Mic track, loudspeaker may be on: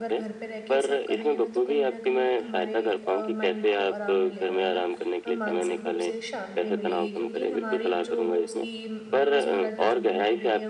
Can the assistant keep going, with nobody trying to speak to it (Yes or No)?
No